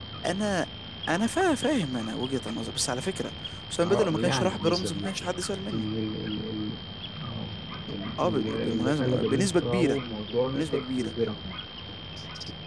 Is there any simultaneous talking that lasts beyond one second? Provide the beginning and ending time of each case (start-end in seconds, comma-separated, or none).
3.9-5.9, 8.2-10.0